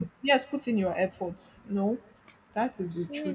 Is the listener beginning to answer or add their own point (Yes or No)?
Yes